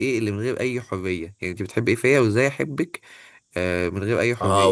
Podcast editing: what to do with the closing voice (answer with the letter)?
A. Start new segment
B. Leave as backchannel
A